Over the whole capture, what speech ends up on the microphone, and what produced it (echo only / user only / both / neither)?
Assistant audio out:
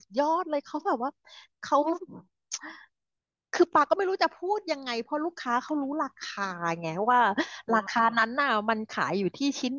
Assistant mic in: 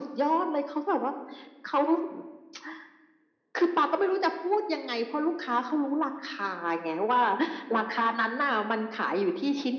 echo only